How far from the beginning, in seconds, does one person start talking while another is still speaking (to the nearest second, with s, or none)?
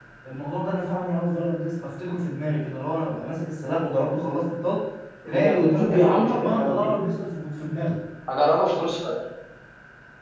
5 s